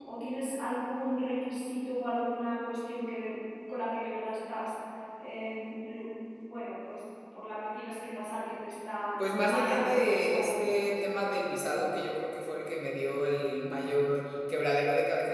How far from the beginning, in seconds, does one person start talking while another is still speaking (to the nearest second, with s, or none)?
9 s